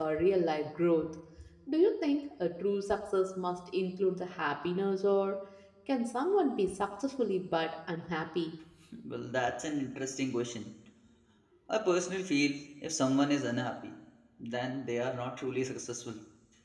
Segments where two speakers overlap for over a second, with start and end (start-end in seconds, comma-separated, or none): none